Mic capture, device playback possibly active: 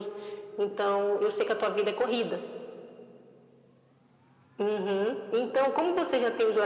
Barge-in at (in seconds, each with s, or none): none